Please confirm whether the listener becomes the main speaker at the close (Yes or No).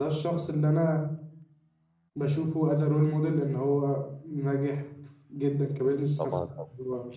Yes